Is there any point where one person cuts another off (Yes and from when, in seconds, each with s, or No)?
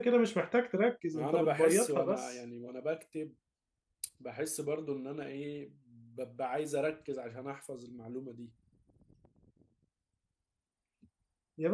Yes, from 1.1 s